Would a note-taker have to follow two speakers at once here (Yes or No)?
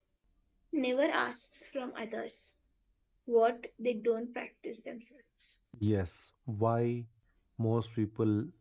No